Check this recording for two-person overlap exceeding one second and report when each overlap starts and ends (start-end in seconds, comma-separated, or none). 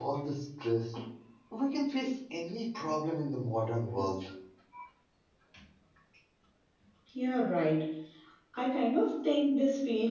none